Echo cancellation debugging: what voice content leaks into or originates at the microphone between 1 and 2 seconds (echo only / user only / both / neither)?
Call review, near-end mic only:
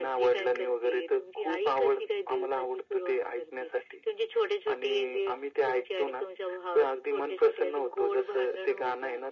echo only